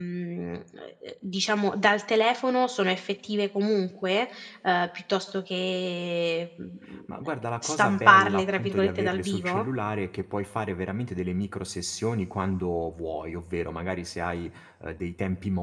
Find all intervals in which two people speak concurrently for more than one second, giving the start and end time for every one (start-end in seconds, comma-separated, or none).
7.6-9.7